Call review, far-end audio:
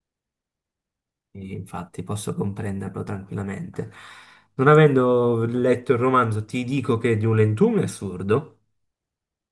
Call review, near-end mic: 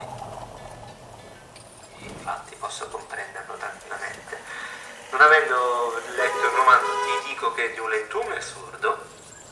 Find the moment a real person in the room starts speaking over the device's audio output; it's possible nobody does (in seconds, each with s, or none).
none